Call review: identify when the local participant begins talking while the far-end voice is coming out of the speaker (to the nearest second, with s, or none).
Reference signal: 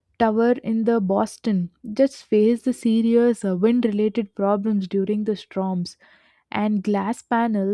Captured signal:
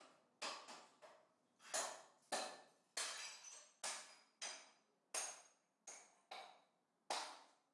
none